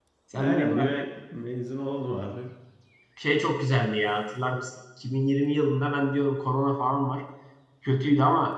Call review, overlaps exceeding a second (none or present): none